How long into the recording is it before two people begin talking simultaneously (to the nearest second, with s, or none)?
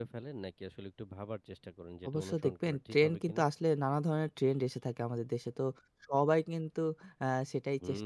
2 s